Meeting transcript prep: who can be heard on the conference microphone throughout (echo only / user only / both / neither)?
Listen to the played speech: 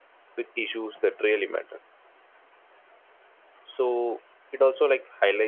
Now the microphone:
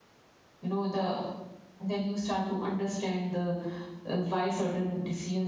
user only